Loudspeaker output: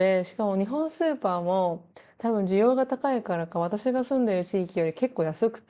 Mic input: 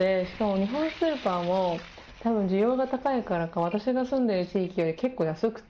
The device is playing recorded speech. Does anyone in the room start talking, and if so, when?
none

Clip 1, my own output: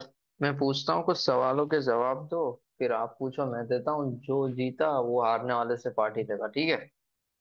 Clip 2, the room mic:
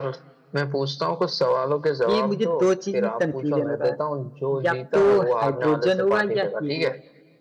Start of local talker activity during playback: 2.1 s

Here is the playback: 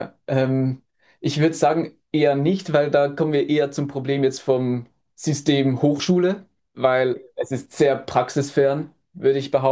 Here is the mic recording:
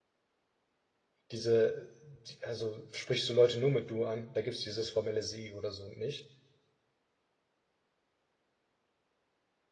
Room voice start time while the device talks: 1.3 s

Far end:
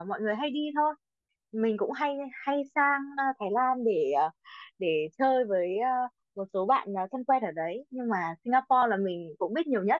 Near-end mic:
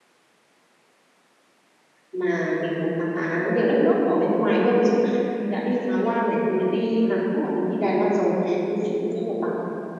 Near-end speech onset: 2.1 s

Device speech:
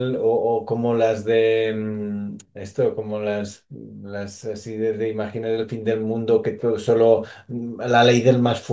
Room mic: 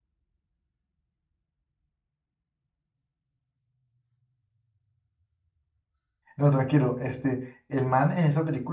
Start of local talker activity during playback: 6.4 s

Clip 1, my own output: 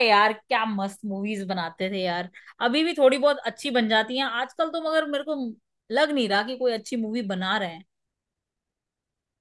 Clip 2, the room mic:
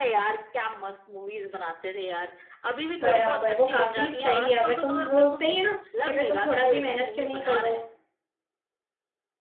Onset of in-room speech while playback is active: 3.0 s

